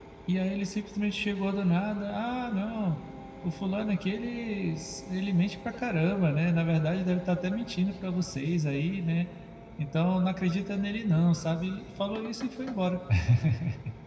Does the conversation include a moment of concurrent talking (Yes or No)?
No